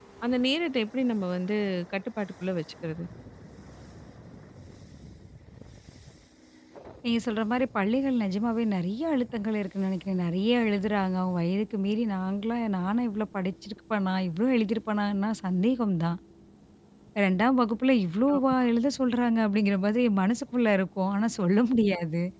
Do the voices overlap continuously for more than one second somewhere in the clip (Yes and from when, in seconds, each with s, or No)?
No